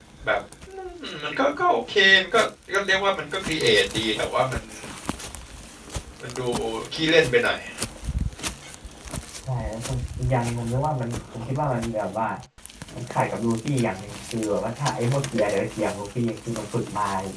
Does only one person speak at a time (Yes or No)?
Yes